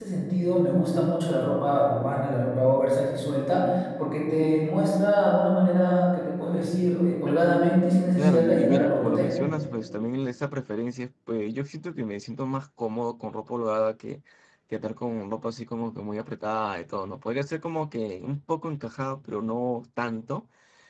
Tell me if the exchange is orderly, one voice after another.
No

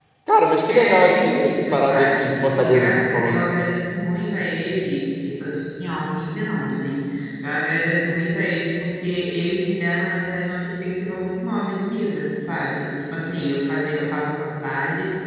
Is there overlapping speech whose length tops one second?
Yes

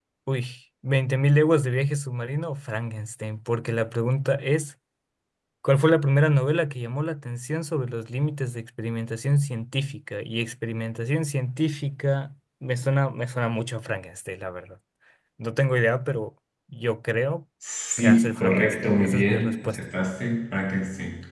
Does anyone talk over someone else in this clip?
Yes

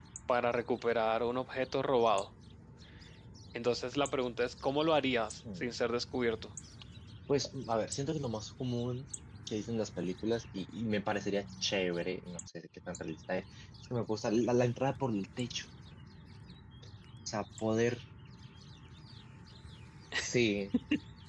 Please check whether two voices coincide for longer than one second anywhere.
No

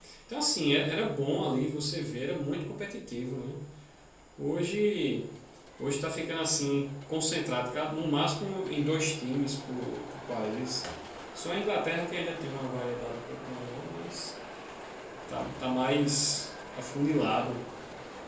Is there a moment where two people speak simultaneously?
No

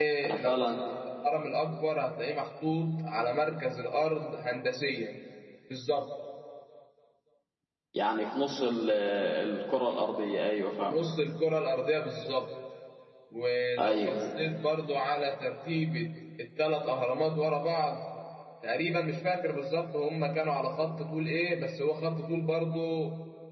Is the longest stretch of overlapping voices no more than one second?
Yes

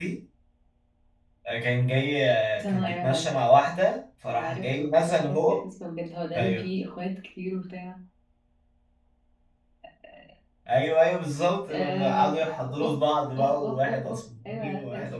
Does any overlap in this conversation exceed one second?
Yes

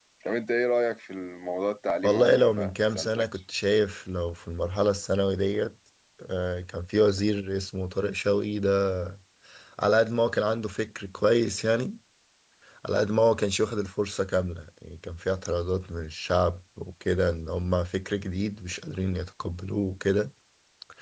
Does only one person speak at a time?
No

